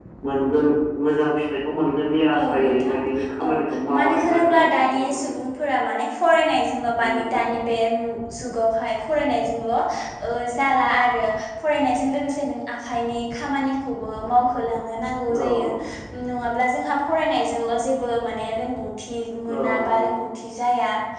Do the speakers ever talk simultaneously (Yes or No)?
Yes